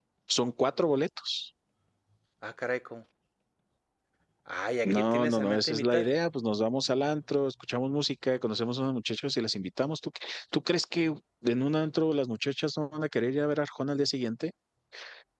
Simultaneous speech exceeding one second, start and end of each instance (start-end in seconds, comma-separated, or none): 4.8-6.1